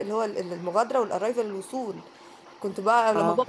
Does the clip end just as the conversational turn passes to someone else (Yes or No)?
No